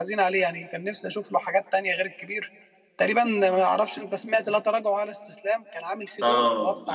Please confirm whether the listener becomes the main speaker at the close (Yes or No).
Yes